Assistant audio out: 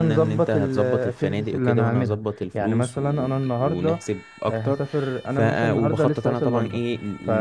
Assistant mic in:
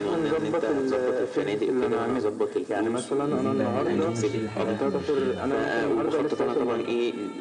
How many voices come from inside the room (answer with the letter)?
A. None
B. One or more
B